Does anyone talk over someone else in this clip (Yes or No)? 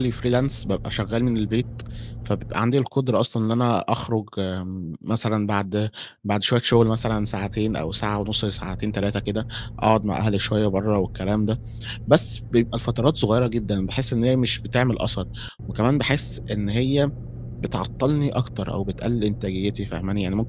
No